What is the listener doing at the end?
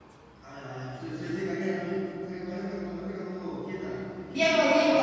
taking over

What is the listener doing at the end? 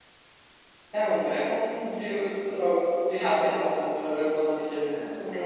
listening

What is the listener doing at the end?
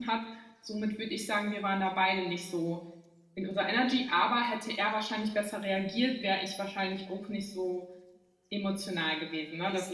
taking over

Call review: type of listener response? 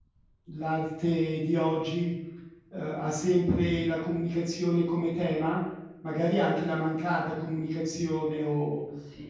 listening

